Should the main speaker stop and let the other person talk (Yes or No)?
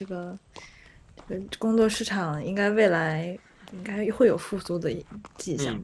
Yes